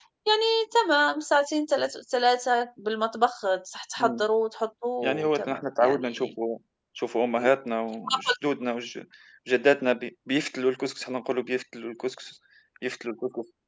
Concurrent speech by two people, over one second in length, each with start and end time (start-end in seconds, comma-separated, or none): 5.0-6.3